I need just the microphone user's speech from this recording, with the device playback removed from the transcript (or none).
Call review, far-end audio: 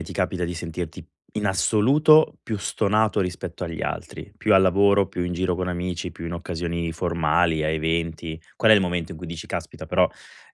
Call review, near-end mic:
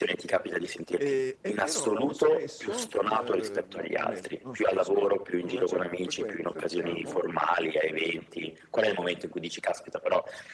Ehm, e però spesso, uhm, o meno, non spesso, però con una certa frequenza diciamo,